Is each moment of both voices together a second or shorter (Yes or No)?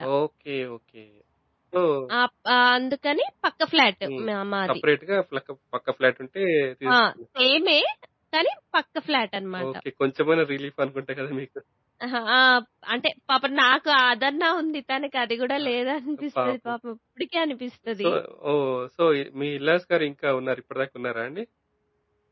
Yes